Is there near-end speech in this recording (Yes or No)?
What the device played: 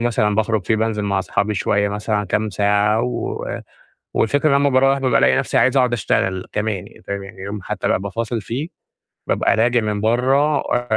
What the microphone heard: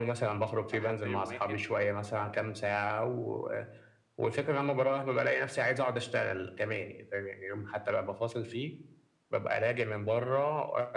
Yes